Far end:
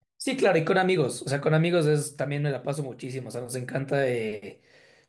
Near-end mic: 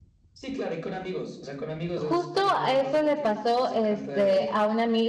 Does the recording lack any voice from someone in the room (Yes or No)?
No